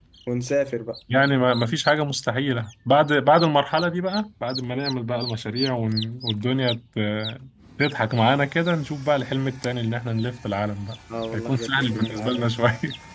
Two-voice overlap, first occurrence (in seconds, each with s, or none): 11.1 s